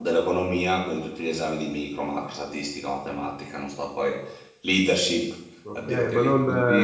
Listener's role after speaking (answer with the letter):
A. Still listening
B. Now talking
B